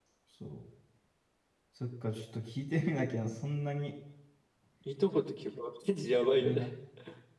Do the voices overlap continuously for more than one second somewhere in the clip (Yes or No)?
No